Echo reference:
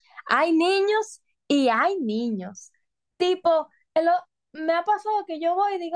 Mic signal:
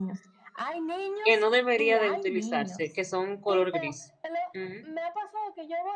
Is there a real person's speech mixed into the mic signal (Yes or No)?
Yes